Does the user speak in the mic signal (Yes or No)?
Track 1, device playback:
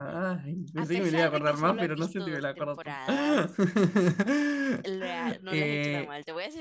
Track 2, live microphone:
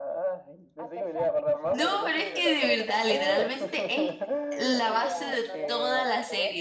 Yes